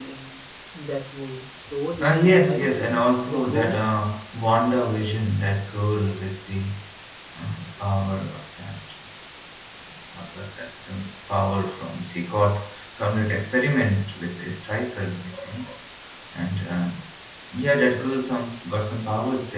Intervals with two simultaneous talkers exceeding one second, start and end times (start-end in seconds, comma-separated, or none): 2.0-3.8